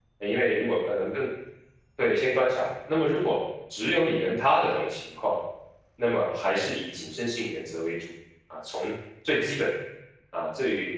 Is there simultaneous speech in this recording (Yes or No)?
No